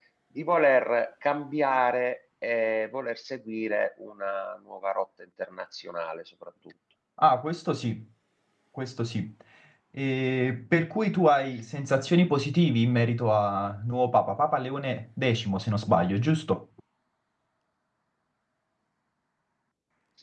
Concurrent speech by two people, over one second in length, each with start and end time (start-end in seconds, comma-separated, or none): none